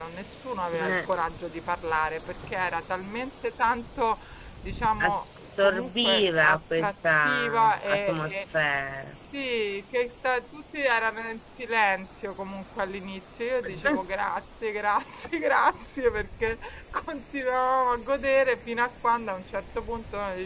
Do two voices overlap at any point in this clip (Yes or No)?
Yes